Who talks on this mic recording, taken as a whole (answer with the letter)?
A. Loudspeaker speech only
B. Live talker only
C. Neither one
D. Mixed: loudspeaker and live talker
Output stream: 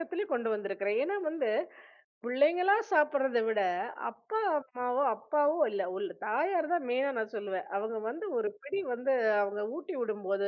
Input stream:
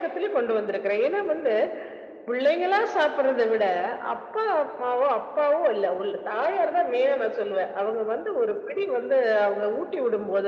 A